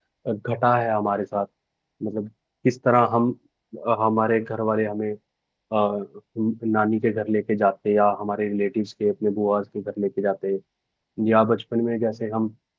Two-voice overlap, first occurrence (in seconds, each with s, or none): none